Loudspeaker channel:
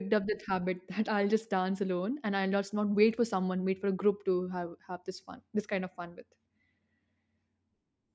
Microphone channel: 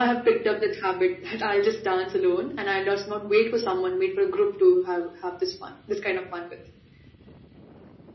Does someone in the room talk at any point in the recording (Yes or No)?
No